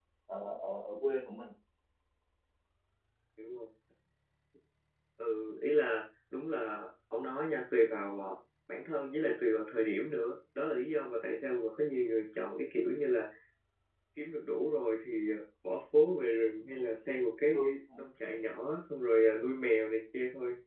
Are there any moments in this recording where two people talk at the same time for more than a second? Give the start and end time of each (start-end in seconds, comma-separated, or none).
none